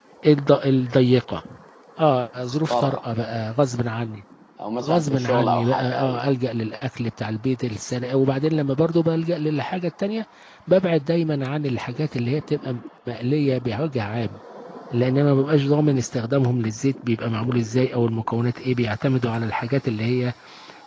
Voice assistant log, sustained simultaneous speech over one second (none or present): present